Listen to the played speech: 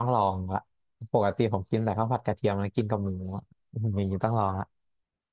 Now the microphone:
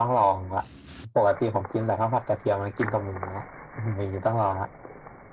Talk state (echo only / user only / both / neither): echo only